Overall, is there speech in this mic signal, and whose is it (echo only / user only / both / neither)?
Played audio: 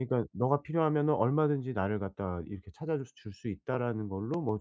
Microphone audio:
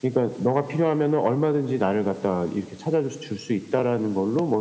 echo only